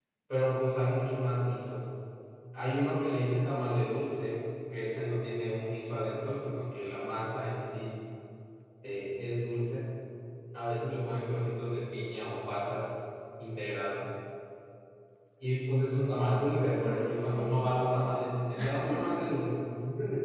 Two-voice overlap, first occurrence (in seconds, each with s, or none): 16.7 s